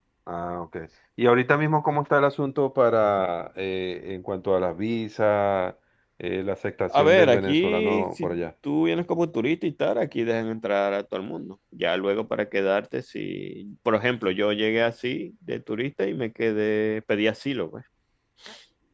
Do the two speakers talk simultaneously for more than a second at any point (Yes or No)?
Yes